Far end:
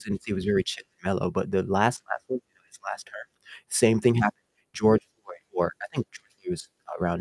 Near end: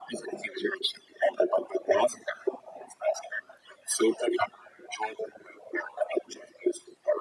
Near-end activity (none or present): none